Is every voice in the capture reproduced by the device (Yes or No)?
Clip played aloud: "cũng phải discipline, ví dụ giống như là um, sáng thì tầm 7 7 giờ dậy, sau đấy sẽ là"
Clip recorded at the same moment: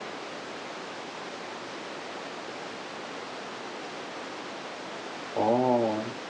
No